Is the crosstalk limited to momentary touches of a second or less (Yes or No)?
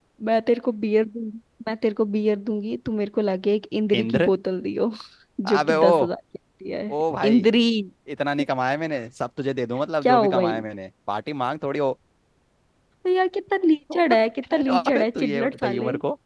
No